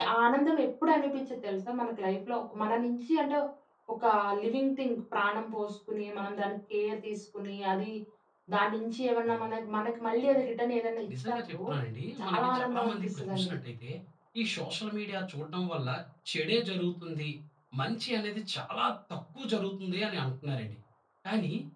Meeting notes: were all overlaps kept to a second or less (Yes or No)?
No